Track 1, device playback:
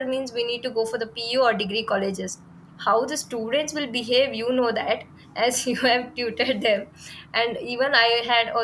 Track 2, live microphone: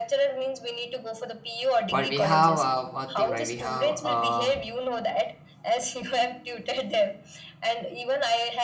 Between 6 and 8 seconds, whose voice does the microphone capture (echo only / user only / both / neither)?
echo only